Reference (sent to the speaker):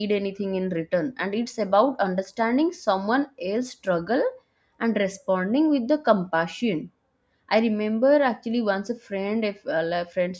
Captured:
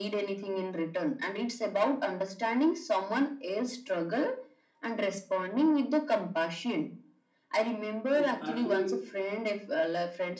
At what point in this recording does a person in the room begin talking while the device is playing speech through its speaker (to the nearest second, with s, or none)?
8 s